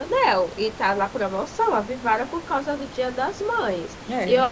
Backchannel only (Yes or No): Yes